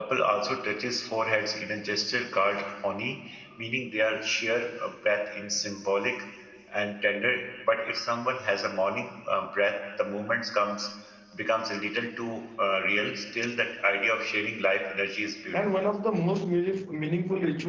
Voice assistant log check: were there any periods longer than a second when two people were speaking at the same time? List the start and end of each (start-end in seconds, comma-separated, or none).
none